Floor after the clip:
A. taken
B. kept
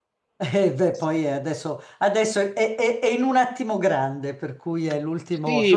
A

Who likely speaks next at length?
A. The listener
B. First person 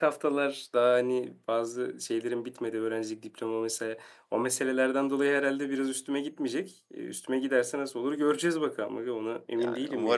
A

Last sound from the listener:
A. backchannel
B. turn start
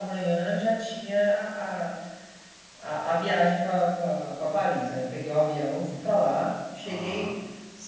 A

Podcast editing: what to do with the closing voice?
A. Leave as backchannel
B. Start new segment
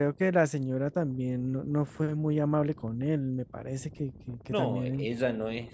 B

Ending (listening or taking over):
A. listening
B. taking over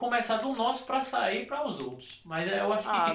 B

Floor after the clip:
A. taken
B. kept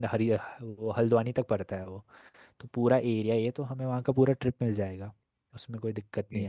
A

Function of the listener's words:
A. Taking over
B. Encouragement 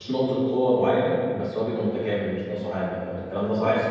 A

